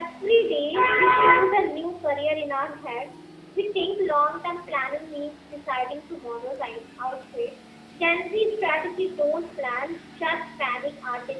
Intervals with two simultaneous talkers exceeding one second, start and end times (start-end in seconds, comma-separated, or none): none